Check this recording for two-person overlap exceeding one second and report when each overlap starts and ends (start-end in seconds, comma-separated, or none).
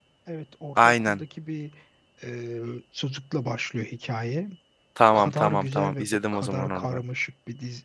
5.1-7.0